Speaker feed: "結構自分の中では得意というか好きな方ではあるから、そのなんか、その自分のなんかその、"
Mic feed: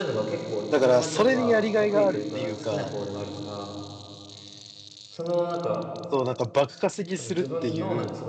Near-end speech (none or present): present